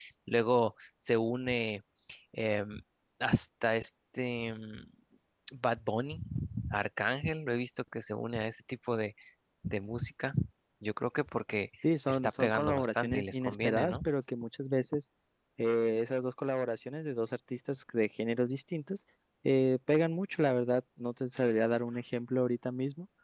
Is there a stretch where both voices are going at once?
Yes, from 12.1 s

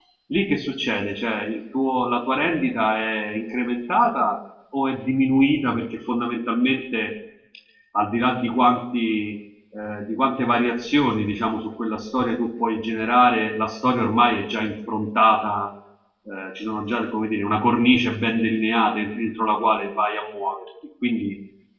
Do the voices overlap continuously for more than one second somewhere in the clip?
No

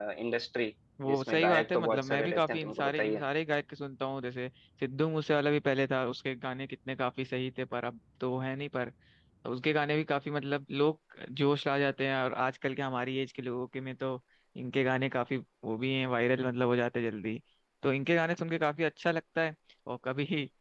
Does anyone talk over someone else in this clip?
Yes, from 1.1 s

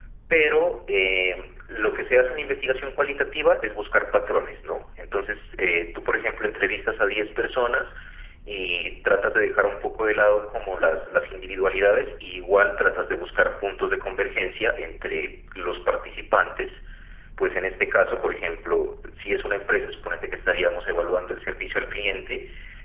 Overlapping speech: No

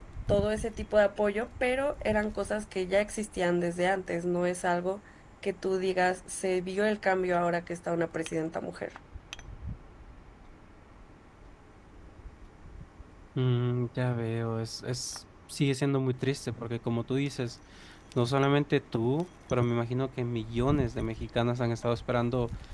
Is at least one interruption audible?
No

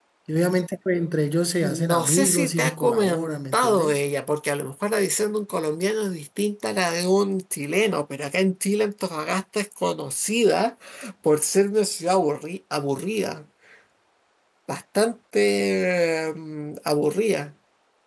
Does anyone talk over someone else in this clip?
Yes, from 1.6 s

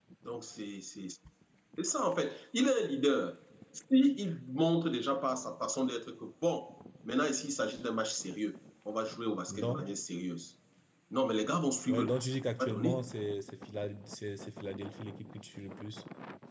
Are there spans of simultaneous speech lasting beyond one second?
No

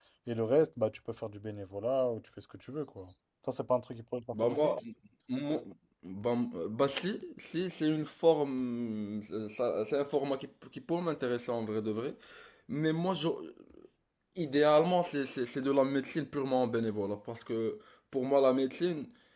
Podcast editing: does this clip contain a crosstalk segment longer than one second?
No

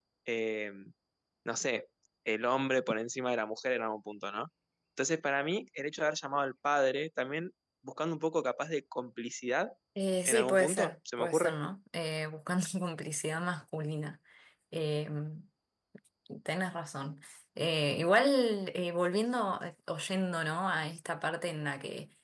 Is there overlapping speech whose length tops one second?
Yes, from 10.2 s

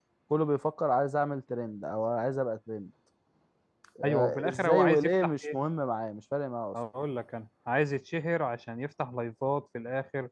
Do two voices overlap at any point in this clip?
Yes, from 4.0 s

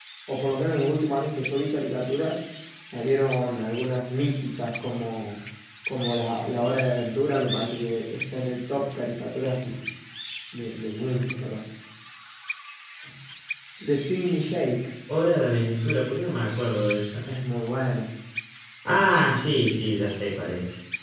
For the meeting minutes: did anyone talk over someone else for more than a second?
No

